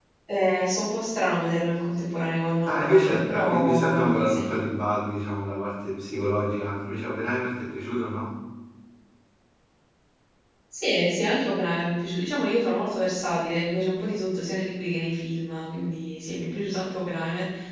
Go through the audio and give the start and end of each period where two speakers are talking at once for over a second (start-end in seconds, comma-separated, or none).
2.7-4.4